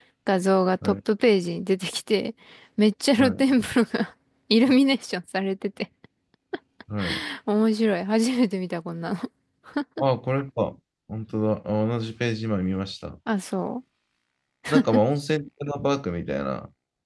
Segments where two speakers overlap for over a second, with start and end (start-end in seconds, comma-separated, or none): none